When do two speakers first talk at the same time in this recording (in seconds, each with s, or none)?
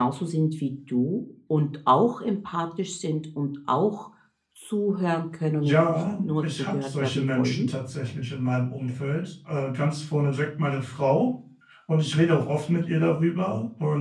5.6 s